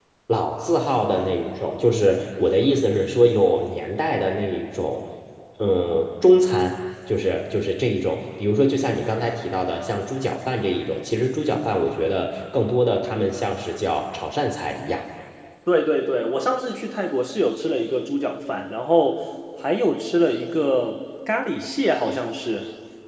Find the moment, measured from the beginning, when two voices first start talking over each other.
none

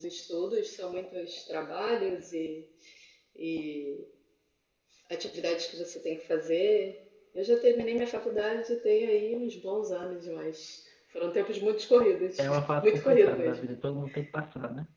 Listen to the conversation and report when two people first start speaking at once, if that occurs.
12.4 s

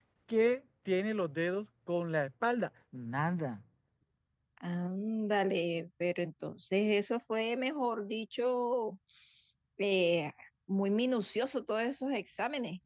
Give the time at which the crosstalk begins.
none

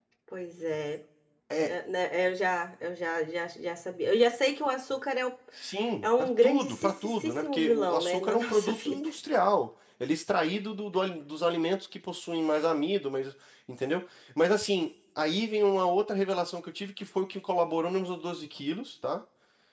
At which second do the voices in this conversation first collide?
6.0 s

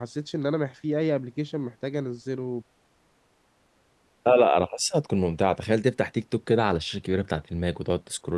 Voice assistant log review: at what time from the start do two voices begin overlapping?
none

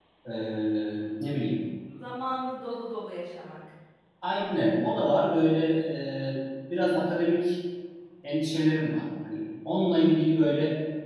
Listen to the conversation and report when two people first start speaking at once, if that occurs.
none

